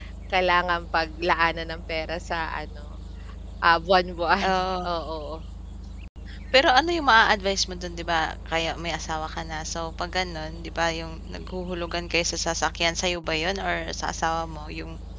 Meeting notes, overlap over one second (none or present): none